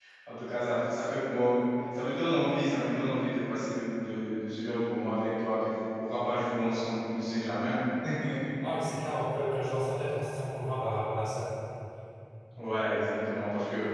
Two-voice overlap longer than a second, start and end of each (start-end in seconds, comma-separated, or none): none